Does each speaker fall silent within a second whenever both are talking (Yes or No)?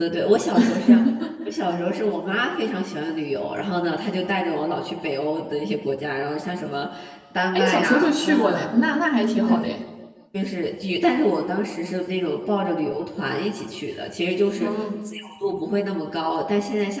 No